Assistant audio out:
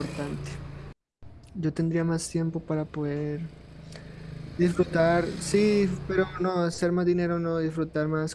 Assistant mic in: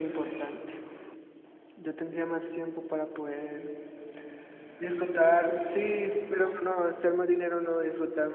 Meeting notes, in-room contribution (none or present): none